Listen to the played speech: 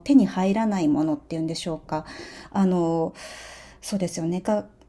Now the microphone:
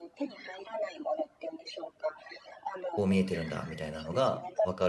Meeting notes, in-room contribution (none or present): present